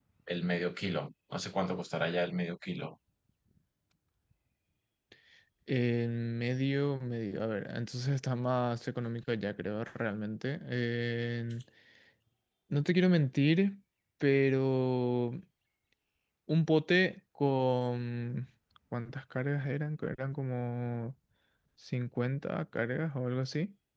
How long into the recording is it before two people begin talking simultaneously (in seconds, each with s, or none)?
none